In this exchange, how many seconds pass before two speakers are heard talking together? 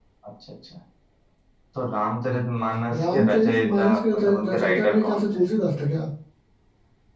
2.9 s

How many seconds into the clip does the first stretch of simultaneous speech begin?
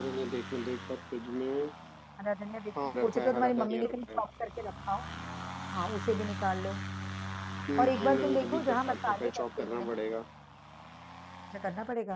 3.0 s

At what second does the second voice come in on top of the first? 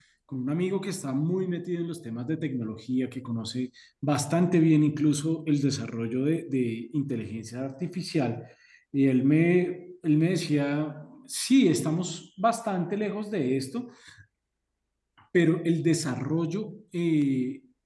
none

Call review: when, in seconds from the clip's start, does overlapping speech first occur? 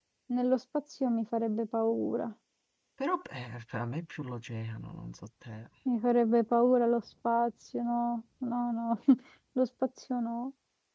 none

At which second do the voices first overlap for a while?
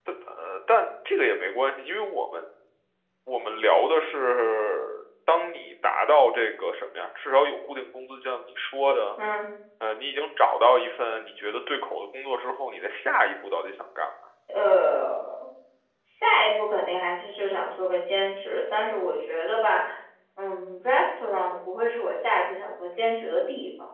none

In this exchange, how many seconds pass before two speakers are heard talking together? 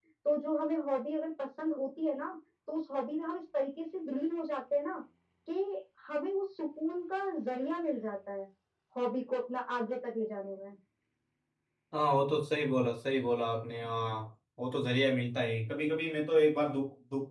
none

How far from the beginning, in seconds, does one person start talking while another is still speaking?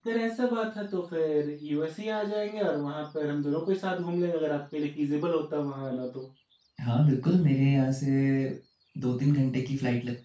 none

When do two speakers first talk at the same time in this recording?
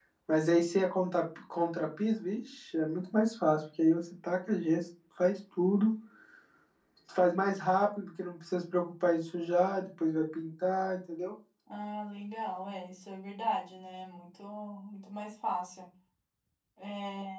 none

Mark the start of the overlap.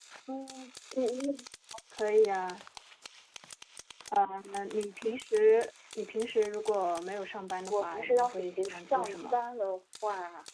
7.7 s

